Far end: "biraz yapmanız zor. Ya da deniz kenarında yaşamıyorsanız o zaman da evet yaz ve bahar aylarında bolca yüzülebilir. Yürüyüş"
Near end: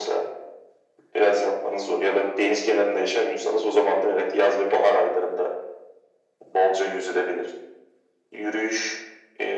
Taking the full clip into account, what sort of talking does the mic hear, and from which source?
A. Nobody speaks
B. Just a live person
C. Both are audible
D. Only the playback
D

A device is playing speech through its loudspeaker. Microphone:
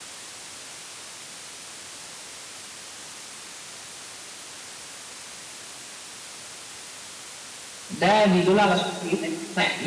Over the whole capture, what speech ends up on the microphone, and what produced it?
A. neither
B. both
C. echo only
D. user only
D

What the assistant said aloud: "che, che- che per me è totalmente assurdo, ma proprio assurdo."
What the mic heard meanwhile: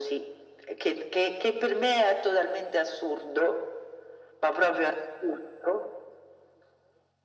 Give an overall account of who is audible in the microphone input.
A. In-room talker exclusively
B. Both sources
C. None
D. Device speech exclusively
D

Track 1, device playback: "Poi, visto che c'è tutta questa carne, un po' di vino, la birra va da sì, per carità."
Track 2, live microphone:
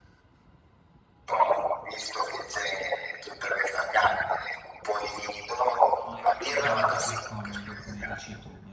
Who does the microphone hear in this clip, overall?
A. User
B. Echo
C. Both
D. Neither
C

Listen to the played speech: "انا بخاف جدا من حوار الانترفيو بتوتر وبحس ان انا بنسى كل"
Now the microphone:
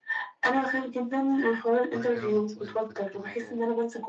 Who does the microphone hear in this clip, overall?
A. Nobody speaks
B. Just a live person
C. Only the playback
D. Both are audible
D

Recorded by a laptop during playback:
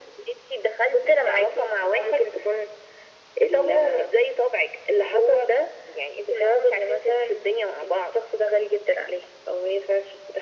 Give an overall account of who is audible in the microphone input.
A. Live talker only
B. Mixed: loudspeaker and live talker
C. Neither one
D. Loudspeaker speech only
D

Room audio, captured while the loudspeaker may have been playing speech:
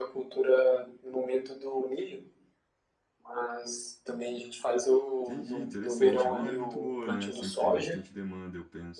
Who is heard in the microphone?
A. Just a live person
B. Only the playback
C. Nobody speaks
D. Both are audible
D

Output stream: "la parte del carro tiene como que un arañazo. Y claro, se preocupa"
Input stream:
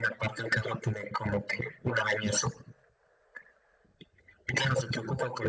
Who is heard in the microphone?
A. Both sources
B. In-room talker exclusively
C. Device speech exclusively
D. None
C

